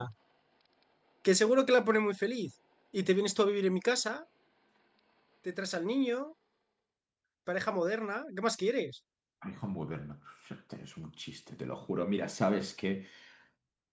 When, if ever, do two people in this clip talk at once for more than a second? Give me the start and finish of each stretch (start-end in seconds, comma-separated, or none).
none